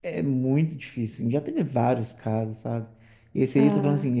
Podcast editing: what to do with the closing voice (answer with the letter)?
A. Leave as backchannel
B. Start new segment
A